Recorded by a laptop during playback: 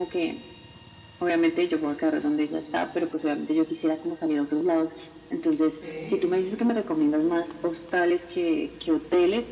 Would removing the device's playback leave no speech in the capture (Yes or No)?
No